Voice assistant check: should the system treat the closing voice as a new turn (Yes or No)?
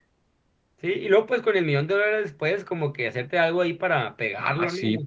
Yes